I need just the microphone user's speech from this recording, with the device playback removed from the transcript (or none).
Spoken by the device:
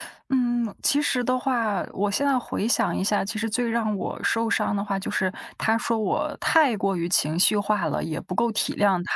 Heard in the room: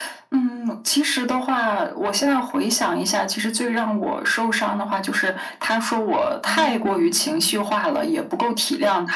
嗯。